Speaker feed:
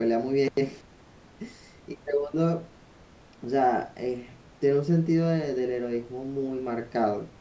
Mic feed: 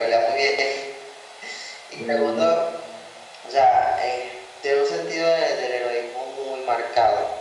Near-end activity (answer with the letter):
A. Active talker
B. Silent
A